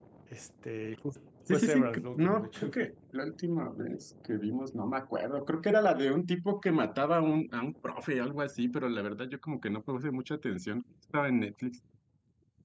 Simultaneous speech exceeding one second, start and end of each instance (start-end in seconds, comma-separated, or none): 1.5-2.9